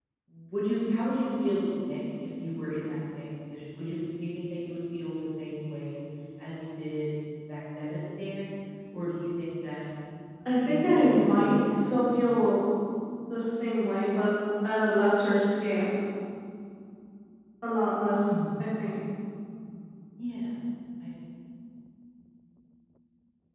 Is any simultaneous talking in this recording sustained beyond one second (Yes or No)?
Yes